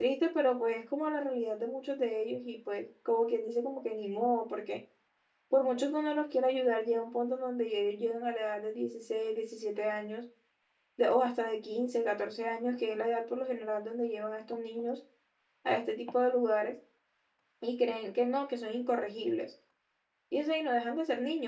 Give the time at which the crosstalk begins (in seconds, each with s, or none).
none